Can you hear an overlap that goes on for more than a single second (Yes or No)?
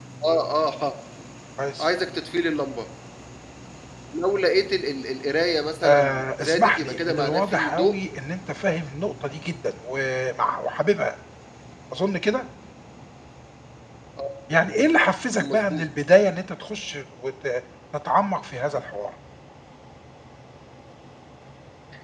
Yes